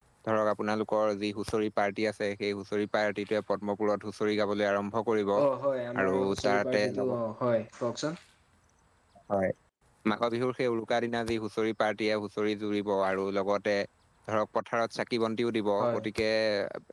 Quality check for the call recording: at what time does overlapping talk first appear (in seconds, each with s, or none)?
6.0 s